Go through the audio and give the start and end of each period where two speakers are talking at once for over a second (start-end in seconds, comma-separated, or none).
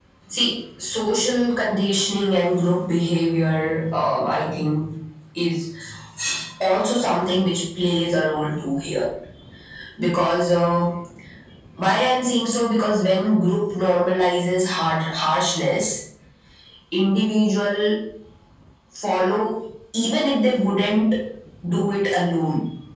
none